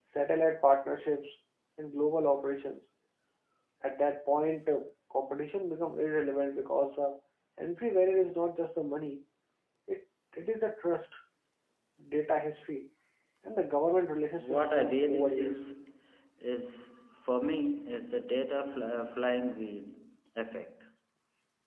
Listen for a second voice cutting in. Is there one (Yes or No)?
Yes